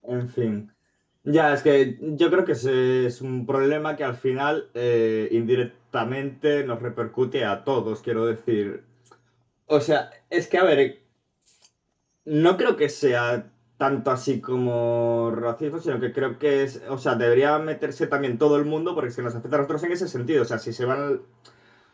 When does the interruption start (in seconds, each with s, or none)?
none